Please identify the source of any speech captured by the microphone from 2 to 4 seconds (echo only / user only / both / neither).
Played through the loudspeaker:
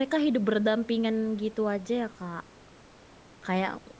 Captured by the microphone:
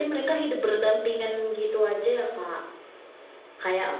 echo only